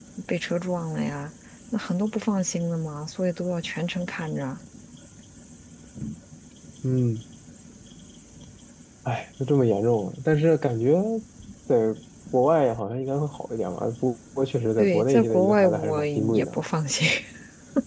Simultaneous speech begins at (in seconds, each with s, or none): 14.8 s